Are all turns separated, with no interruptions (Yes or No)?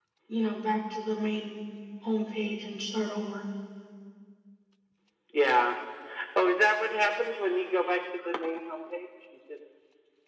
Yes